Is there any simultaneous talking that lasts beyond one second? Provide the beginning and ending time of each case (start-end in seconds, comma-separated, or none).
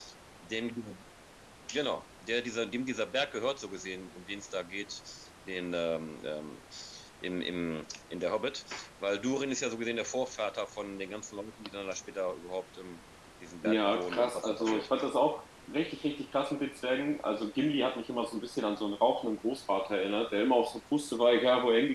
13.6-14.9